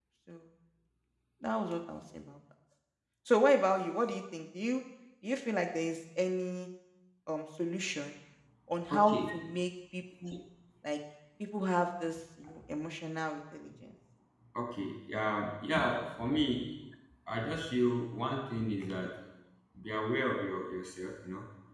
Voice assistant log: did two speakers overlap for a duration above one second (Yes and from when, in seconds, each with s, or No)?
No